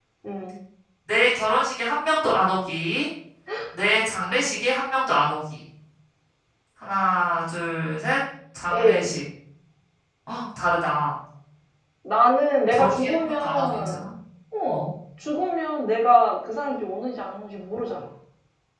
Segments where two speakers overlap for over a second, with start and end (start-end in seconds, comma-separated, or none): 12.7-14.1